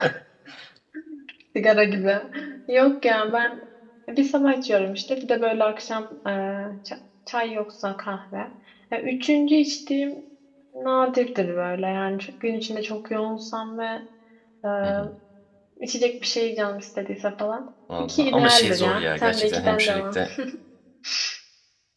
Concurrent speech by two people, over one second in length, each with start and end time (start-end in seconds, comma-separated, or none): 18.0-20.2